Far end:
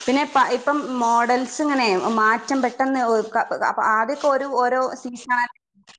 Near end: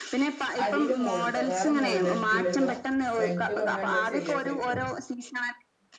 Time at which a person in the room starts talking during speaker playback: 1 s

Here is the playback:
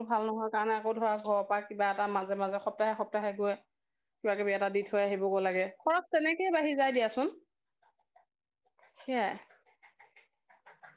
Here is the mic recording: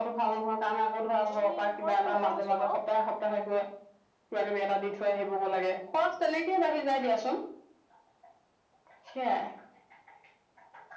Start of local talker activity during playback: 1 s

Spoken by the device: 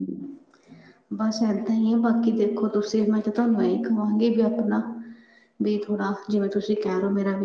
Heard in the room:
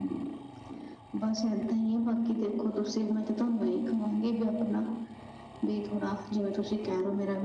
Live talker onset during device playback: none

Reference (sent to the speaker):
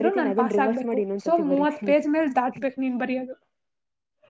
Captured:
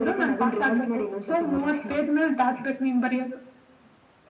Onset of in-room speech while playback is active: none

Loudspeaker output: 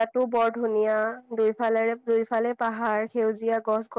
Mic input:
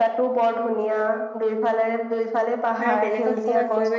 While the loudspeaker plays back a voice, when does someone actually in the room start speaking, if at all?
3 s

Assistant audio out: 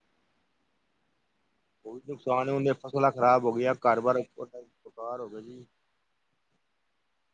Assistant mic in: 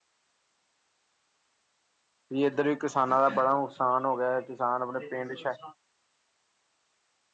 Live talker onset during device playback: 2 s

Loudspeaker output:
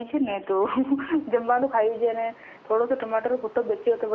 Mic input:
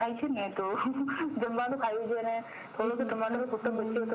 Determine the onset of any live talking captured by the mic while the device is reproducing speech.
3 s

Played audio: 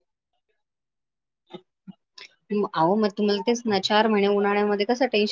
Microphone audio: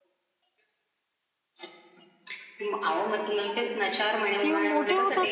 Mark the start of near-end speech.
4 s

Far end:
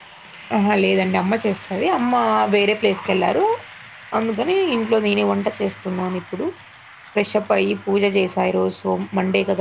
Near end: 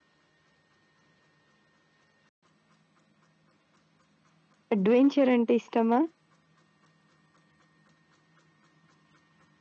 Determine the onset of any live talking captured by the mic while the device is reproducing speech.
5 s

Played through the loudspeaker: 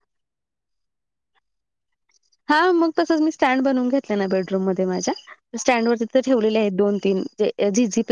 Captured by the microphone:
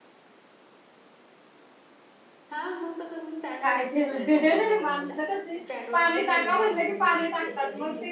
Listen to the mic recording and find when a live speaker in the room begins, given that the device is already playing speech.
4 s

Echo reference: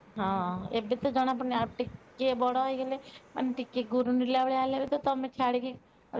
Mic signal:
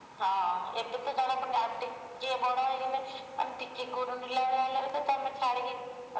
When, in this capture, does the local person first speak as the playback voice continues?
none

